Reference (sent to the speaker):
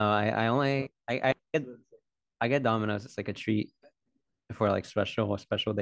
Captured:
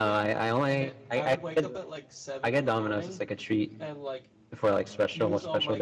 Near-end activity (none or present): present